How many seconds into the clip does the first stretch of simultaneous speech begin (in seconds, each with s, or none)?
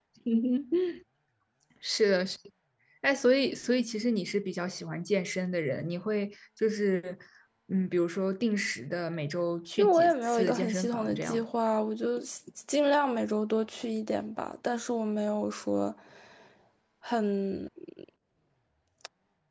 9.8 s